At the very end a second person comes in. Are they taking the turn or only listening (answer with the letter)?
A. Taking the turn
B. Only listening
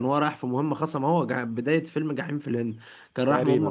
B